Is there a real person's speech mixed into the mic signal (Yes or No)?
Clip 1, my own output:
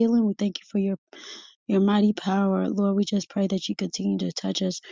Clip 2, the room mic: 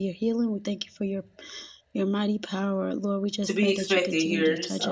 Yes